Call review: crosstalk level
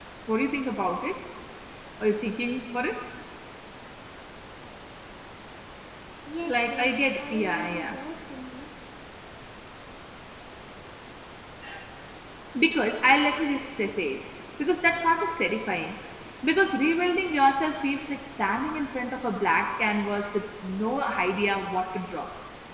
present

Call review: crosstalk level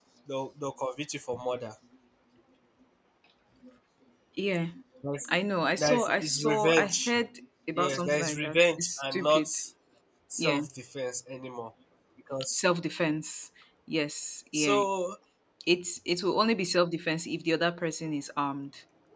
present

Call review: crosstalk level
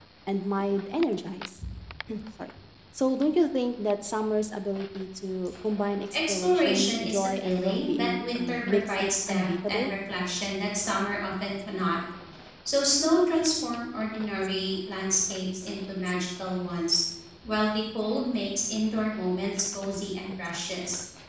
present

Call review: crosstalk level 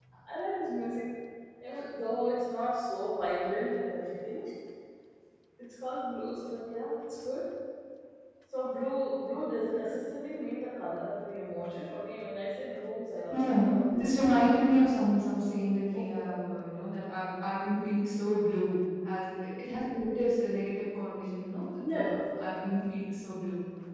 present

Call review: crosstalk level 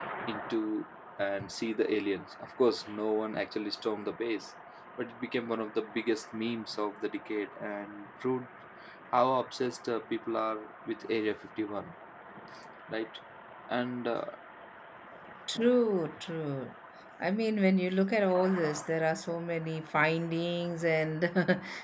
none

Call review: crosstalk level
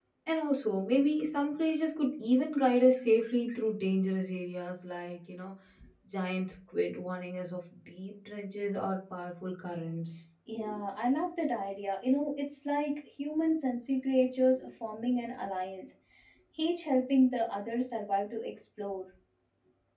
none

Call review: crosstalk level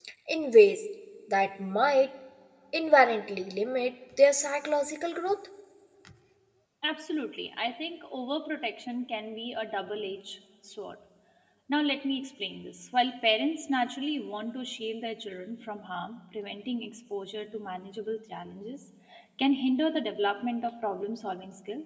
none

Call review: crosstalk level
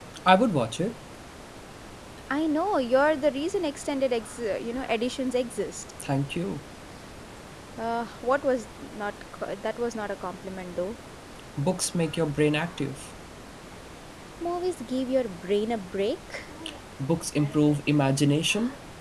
none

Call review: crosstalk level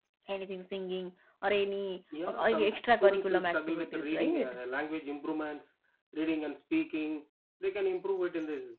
present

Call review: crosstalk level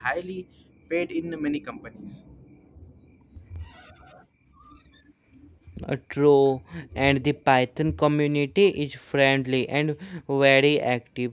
none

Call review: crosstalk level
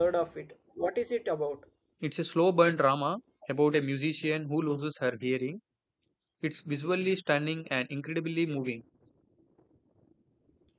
none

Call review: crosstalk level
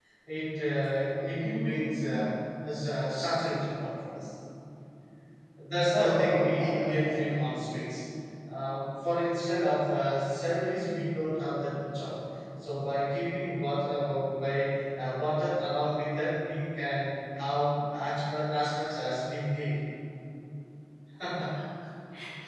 present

